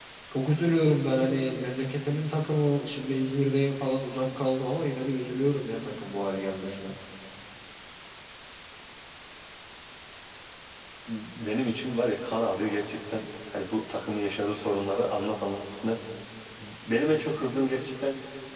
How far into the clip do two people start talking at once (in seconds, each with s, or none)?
none